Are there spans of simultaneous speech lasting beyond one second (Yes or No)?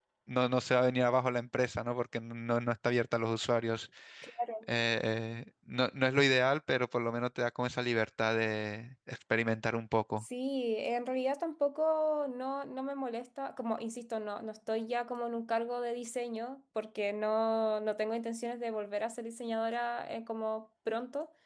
No